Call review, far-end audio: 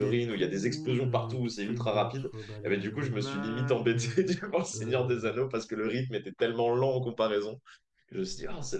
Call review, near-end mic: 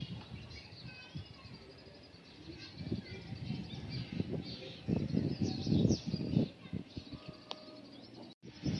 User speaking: No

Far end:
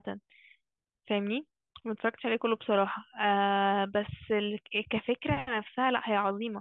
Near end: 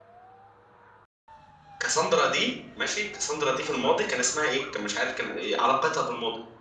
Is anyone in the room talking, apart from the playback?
Yes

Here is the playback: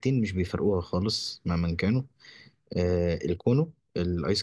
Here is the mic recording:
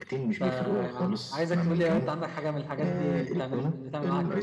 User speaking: Yes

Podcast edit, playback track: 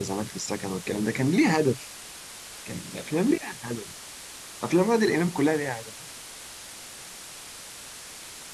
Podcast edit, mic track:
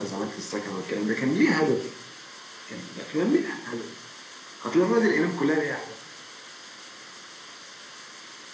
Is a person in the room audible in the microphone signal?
No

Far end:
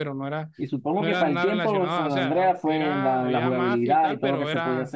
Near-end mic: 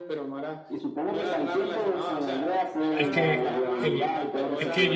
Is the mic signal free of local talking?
No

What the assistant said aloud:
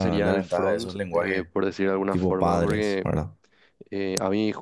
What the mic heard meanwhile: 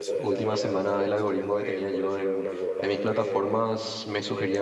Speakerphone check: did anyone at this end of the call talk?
Yes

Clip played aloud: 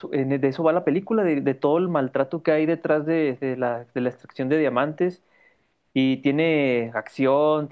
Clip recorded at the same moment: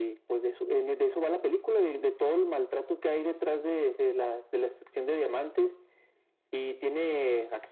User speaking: No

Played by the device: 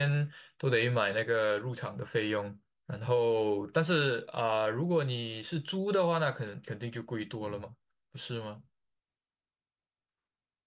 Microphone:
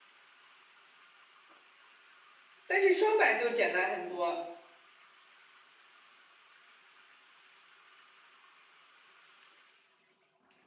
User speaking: Yes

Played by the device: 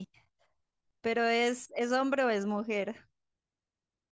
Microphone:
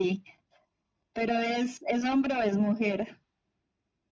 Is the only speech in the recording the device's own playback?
Yes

